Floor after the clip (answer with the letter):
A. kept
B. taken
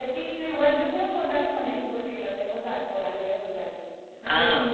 A